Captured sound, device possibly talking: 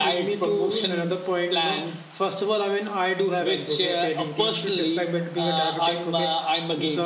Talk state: echo only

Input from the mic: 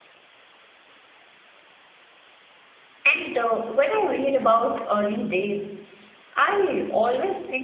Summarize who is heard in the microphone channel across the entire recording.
user only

